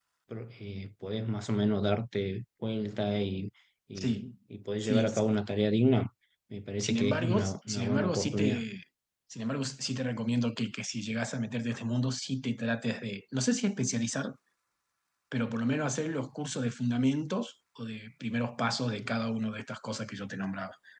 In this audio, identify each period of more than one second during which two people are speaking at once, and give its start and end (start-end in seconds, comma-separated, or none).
6.8-8.6